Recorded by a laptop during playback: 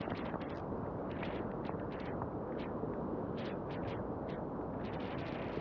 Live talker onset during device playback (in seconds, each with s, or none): none